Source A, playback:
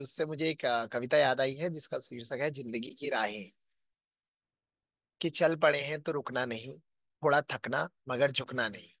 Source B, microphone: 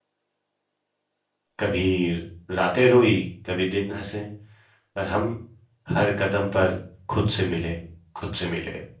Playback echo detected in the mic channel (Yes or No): No